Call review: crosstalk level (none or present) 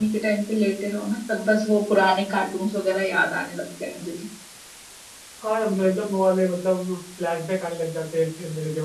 none